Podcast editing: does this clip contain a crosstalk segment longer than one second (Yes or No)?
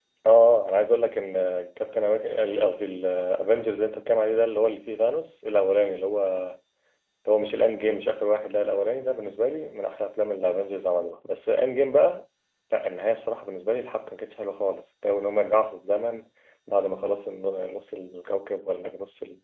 No